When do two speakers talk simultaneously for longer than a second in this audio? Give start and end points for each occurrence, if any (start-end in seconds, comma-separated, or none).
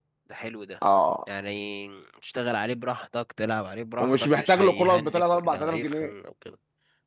4.0-6.1